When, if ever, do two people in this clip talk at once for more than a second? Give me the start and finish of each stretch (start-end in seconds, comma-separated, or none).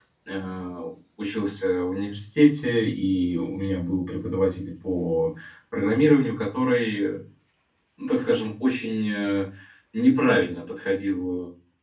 none